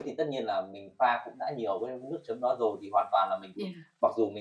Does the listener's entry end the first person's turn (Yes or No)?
No